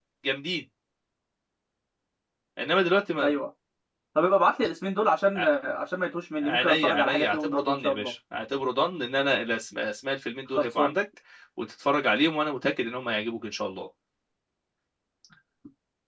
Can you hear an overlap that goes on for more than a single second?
Yes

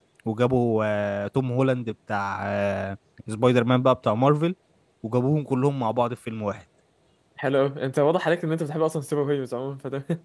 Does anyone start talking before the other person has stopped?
No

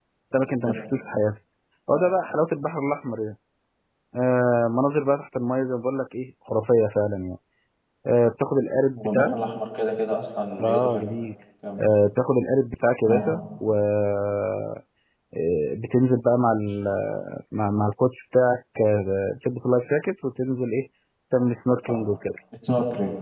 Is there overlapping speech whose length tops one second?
No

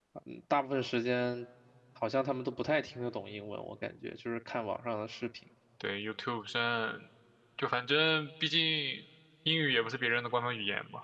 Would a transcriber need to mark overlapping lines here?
No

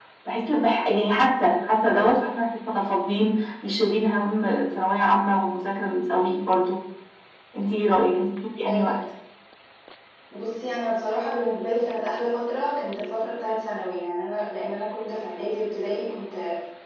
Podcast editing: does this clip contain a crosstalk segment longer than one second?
No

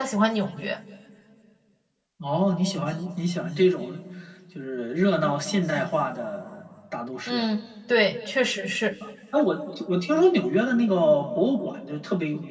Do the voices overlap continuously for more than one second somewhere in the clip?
No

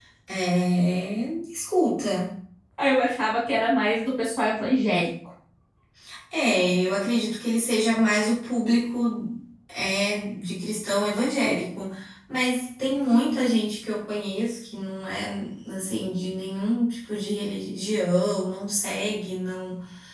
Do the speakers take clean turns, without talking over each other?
Yes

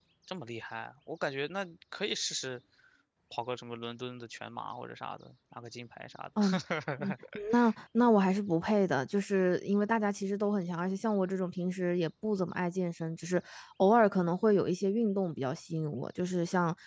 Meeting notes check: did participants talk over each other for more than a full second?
No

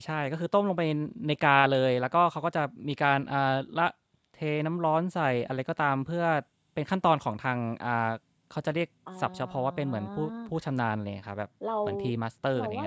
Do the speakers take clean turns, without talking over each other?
No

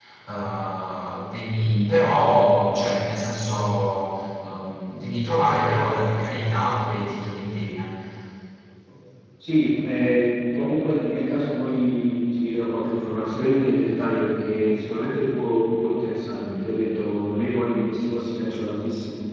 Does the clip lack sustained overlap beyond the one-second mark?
Yes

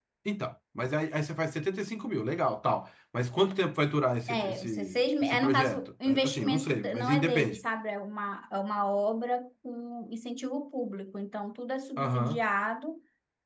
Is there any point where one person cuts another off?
Yes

